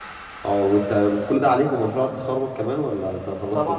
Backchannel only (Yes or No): No